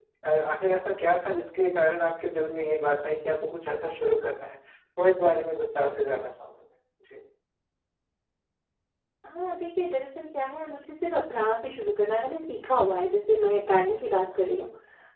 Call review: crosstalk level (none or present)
none